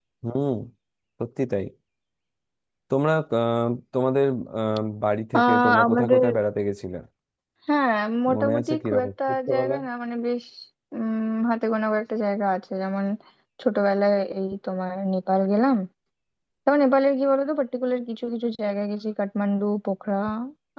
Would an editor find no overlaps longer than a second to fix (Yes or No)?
No